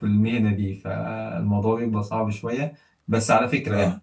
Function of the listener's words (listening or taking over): listening